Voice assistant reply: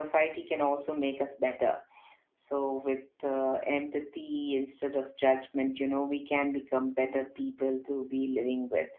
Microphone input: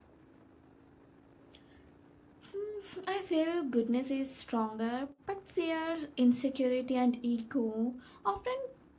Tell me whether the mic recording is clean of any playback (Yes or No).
Yes